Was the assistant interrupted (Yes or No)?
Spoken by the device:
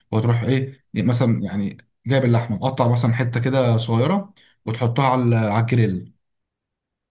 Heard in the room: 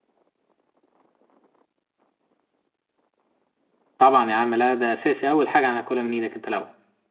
Yes